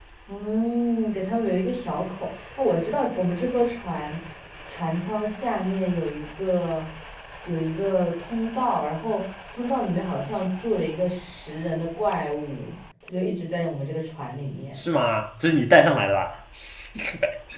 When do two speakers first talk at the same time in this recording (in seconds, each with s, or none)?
none